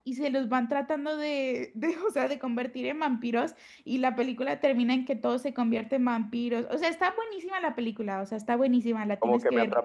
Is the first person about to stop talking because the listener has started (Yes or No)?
Yes